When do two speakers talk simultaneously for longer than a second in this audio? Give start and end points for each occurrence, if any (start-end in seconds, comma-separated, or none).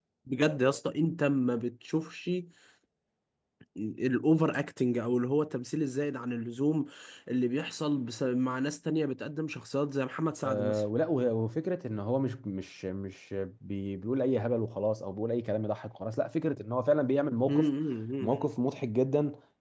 none